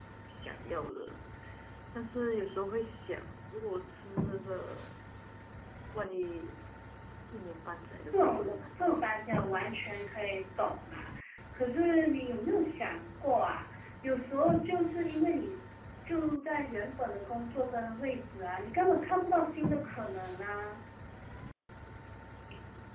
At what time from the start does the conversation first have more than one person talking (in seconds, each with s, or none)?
8.1 s